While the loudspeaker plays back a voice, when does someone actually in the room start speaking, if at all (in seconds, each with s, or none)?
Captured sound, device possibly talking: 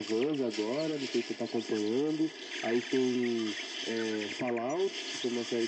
none